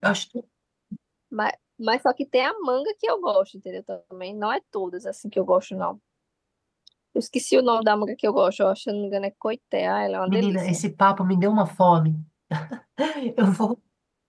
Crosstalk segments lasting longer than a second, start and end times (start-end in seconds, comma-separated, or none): none